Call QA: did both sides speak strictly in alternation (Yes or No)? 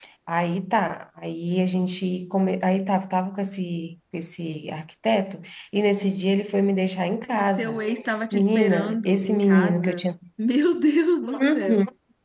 No